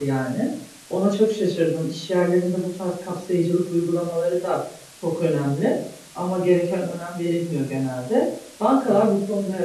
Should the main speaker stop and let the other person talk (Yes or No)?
No